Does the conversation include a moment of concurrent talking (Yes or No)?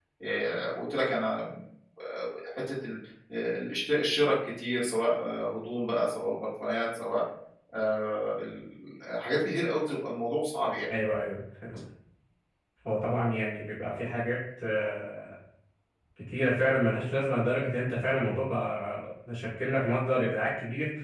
No